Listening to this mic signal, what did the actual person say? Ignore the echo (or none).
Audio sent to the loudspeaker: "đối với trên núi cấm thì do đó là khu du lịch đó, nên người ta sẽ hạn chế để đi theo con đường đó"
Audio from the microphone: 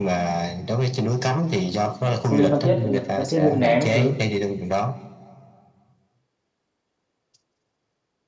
Không đi Phan Thiết, Phan Thiết Mũi Né các thứ.